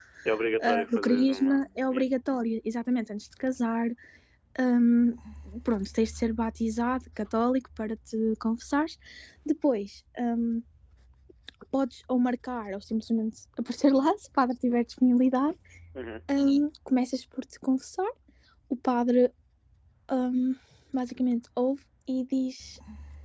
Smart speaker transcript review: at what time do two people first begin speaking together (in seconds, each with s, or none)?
0.6 s